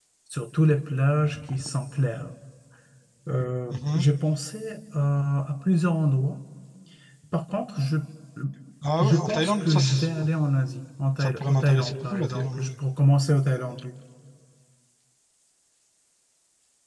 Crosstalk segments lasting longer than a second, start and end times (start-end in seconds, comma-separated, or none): 9.0-10.3, 11.2-12.7